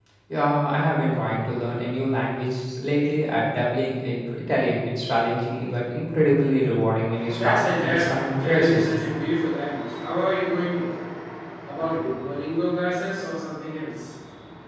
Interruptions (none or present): present